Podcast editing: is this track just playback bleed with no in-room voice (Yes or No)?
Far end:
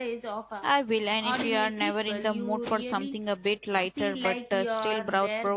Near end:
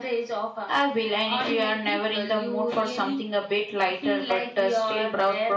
Yes